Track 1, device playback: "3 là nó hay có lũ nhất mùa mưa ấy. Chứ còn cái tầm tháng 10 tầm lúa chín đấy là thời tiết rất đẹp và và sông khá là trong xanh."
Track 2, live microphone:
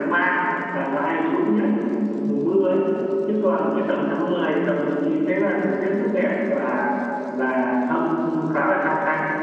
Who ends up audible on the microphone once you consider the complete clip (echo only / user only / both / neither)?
echo only